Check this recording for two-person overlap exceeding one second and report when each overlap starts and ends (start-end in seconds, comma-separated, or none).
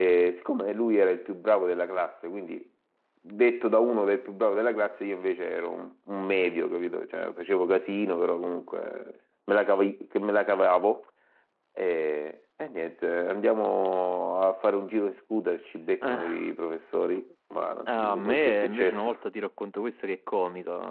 17.9-19.2